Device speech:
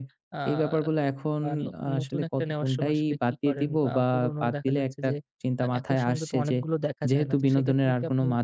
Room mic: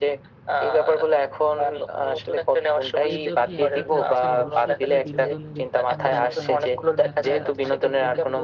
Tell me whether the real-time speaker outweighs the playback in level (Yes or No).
No